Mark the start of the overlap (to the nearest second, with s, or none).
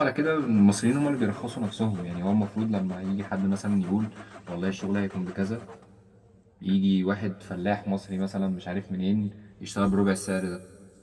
none